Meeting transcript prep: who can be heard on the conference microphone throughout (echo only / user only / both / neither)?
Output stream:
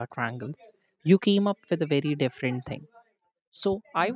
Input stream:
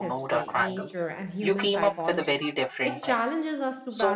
both